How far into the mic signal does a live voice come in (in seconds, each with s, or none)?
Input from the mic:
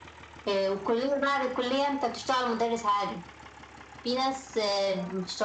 none